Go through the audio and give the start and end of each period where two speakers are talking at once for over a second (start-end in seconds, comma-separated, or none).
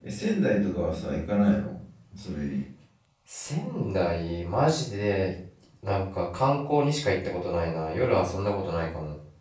none